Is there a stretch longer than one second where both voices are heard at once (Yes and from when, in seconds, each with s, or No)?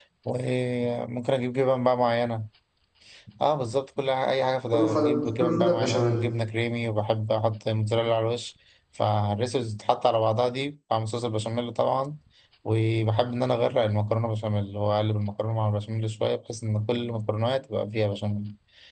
Yes, from 4.7 s